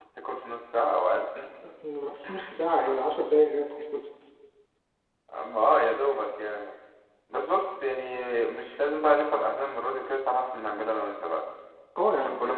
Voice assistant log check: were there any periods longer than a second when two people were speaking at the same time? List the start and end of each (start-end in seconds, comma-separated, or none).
none